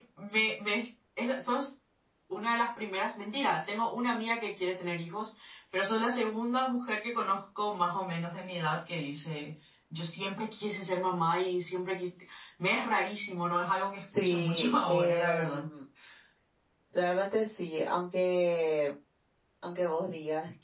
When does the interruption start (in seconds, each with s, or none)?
14.0 s